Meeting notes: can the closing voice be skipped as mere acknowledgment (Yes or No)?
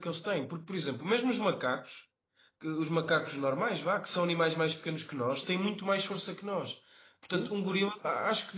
Yes